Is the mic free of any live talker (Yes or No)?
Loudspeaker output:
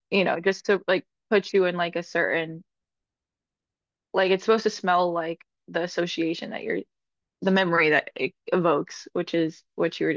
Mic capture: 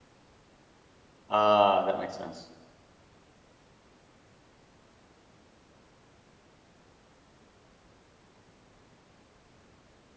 No